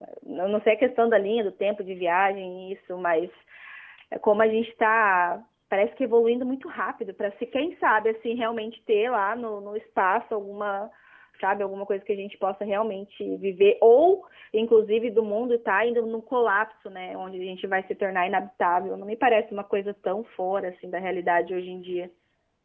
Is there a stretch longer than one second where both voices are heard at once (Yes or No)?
No